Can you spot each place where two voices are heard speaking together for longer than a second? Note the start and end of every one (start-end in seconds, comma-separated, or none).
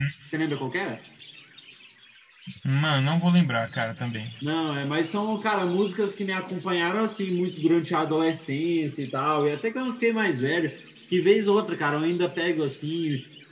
none